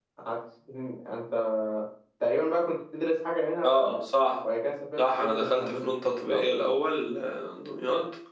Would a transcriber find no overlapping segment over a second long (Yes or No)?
No